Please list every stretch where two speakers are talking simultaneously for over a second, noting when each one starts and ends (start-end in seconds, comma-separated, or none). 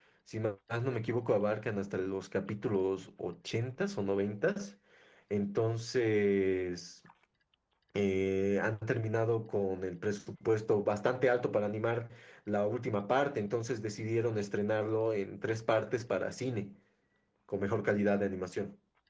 none